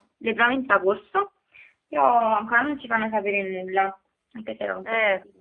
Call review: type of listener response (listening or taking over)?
taking over